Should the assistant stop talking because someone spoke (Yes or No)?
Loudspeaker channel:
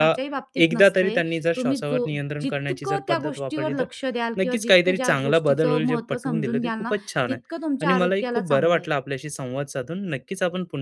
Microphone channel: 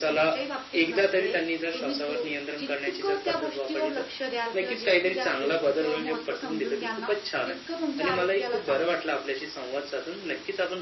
No